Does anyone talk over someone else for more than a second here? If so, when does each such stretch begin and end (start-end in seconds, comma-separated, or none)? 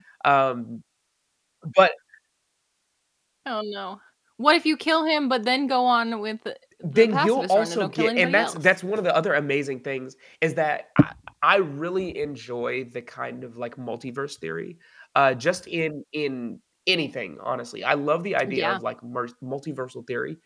6.9-8.6